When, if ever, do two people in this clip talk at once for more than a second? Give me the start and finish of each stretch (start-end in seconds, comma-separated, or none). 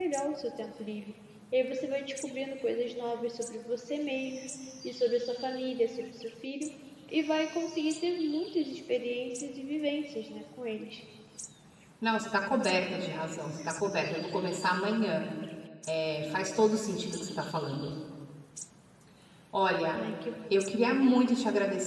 none